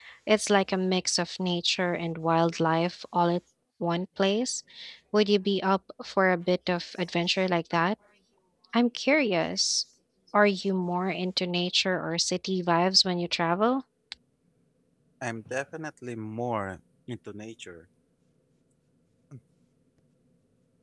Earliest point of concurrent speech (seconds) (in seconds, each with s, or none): none